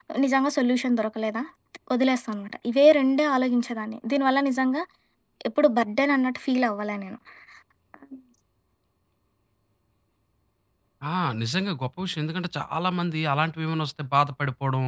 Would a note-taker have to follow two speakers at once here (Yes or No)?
No